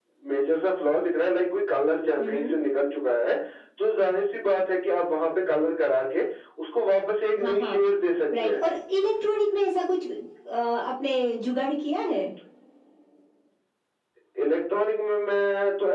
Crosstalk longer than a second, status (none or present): none